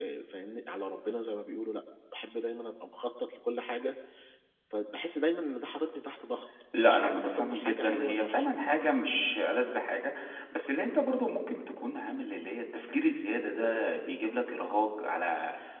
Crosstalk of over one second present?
Yes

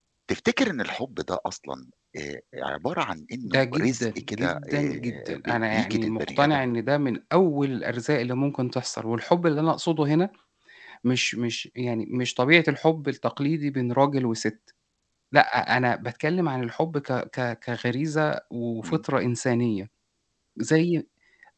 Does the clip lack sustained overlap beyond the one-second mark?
No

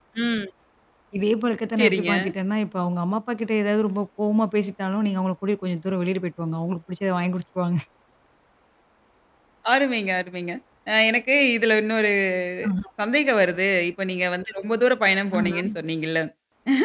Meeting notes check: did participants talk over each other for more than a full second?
No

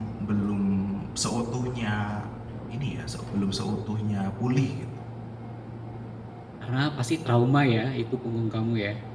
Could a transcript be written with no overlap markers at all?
Yes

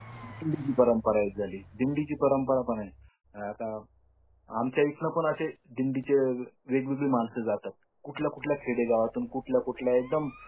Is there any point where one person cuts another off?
No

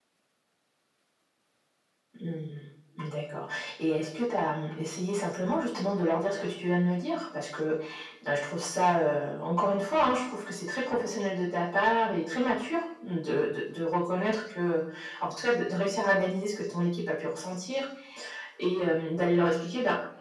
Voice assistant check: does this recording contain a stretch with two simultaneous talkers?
No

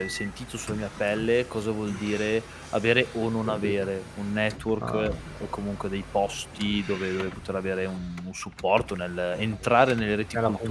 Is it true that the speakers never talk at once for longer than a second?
Yes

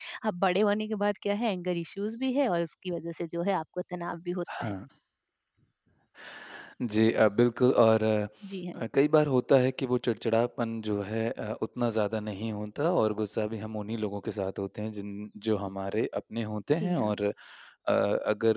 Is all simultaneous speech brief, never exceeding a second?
Yes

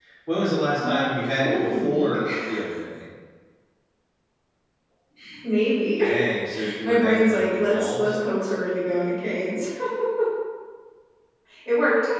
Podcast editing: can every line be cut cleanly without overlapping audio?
No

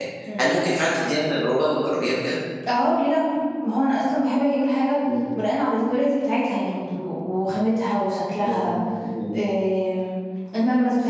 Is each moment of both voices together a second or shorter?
Yes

